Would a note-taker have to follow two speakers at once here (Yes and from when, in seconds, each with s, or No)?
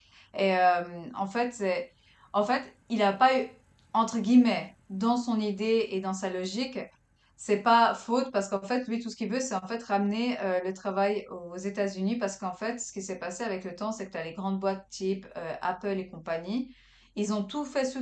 No